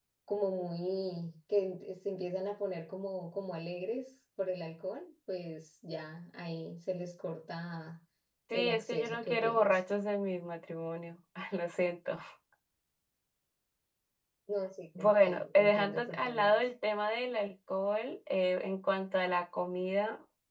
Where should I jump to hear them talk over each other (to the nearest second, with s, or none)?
9 s